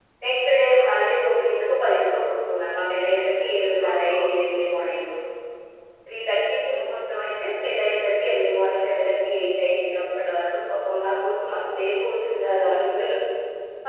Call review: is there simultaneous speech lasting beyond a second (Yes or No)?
Yes